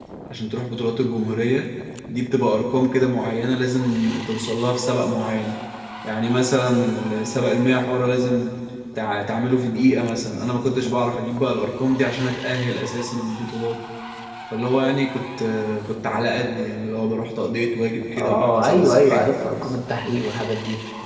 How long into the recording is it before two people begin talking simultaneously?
18.2 s

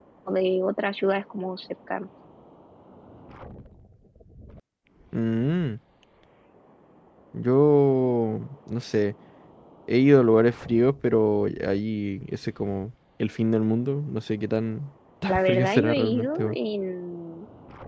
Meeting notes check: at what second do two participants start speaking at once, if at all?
15.3 s

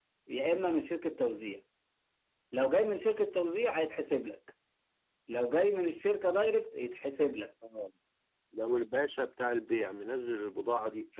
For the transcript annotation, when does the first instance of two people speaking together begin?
none

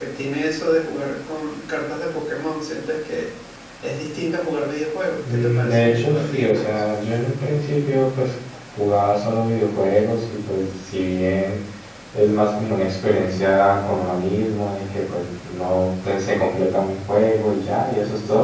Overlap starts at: 5.2 s

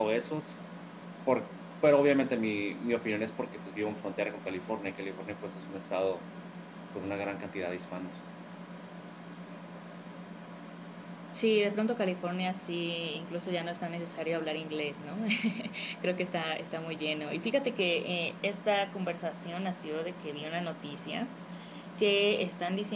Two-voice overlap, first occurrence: none

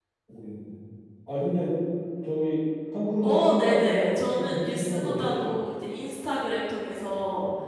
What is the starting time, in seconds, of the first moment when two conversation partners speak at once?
3.2 s

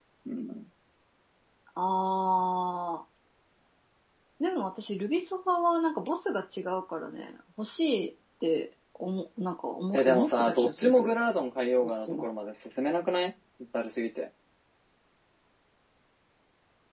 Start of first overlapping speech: 9.9 s

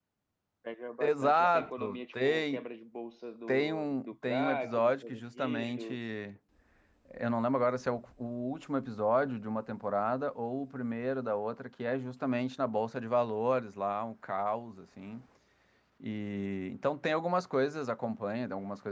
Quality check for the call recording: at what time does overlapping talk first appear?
1.0 s

